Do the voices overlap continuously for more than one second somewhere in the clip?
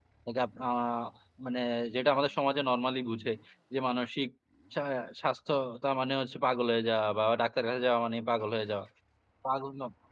No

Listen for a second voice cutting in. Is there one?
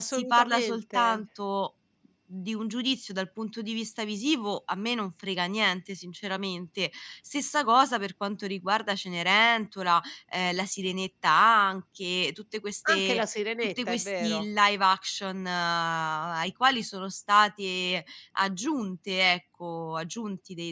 Yes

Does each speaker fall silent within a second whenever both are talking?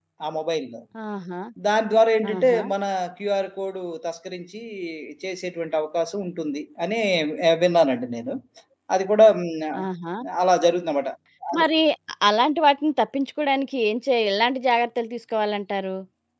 Yes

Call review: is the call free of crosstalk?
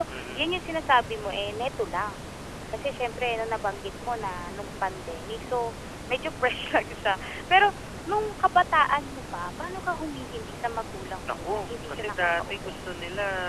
No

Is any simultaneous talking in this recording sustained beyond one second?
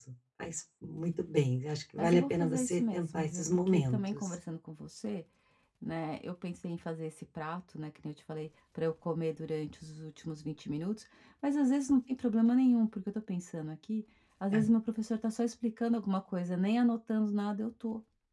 Yes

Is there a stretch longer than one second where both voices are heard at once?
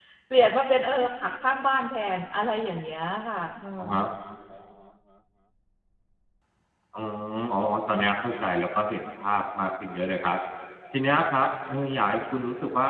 No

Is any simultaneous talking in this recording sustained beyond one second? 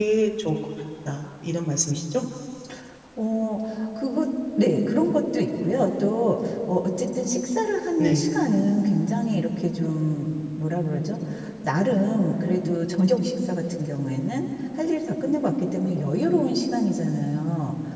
No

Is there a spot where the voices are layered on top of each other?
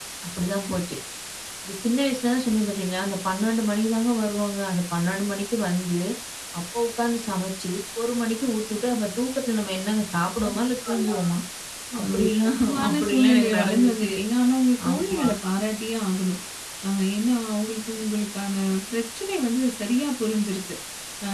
Yes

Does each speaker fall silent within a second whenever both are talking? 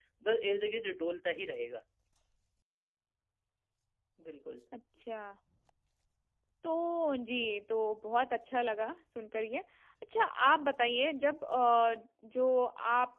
Yes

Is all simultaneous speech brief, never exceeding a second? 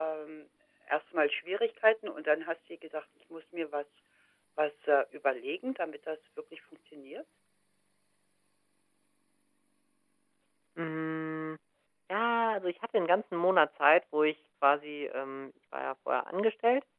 Yes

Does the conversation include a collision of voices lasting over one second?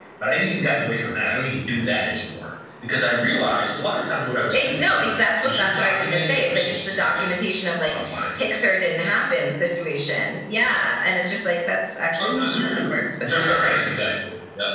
Yes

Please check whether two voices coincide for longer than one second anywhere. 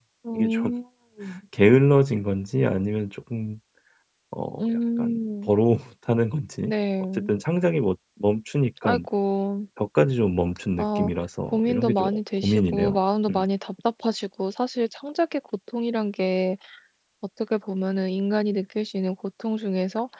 Yes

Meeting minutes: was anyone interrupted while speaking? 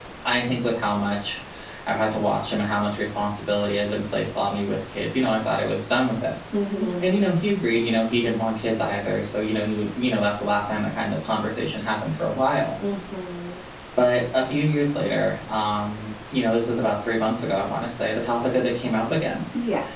No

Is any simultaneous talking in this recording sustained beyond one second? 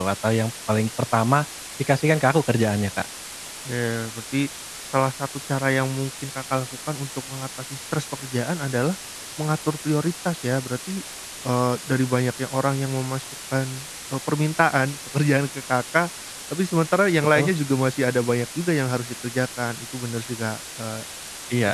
No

